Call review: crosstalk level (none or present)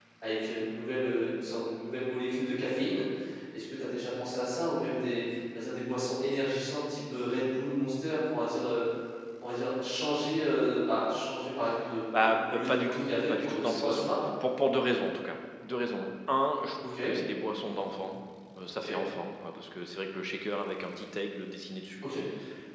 present